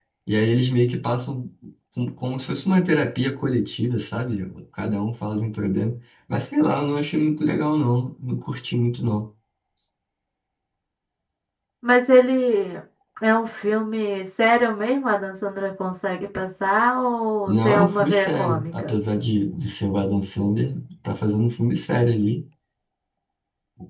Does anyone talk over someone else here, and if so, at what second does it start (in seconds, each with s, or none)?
17.5 s